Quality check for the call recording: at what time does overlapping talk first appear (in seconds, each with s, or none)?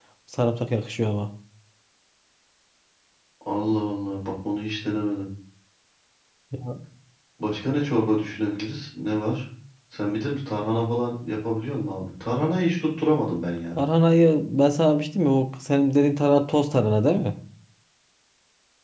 none